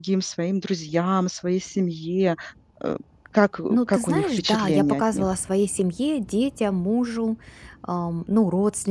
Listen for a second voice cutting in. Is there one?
Yes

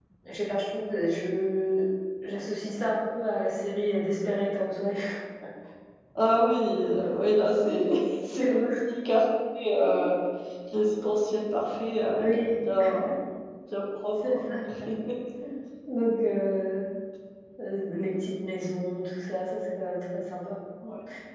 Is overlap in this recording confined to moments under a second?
Yes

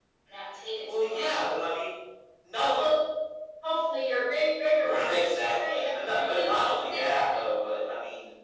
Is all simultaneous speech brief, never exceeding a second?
No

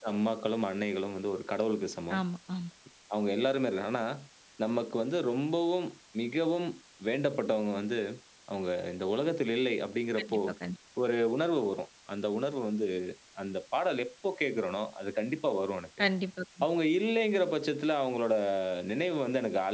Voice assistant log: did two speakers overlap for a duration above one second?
No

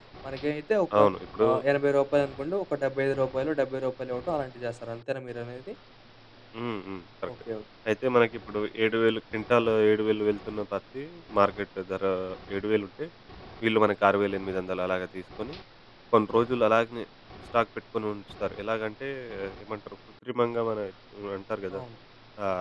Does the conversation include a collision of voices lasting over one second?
No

